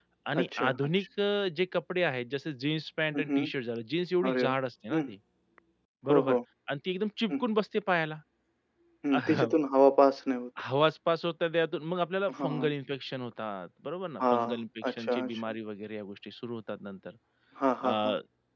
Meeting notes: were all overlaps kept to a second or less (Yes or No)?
No